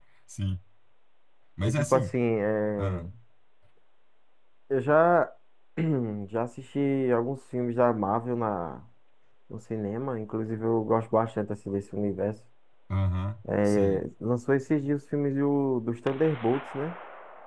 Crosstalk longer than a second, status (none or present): none